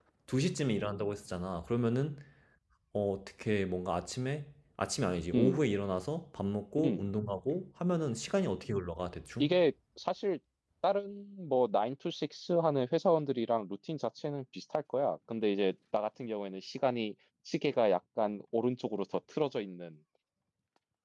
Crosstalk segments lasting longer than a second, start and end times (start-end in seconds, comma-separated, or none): none